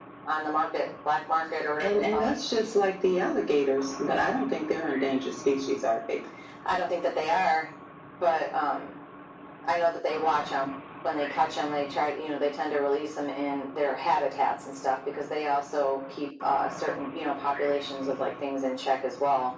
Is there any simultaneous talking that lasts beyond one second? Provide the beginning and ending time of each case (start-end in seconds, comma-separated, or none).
none